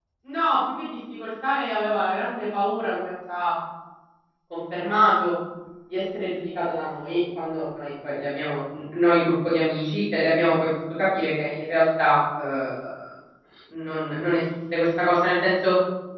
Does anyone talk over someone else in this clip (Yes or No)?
No